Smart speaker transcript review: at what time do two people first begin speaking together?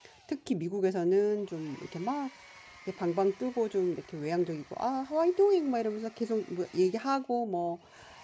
none

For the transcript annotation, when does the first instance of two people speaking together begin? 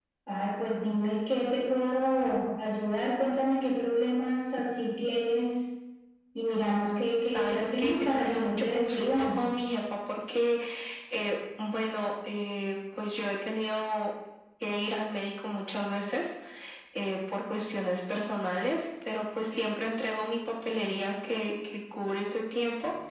7 s

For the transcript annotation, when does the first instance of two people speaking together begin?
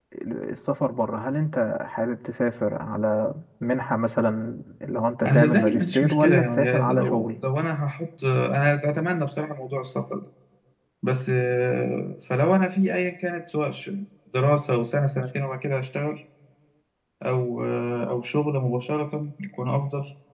5 s

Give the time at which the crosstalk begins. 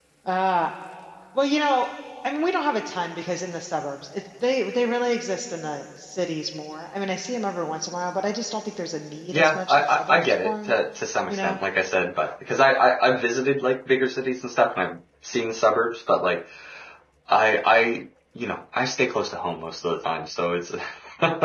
9 s

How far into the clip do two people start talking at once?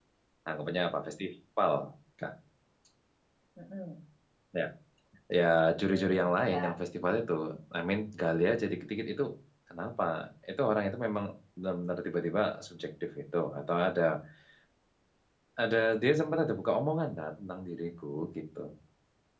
6 s

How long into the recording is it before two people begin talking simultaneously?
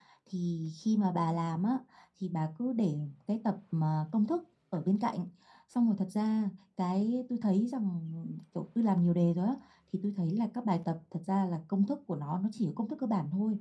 none

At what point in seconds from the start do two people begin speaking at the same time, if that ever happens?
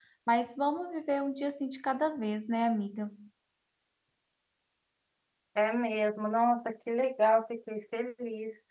none

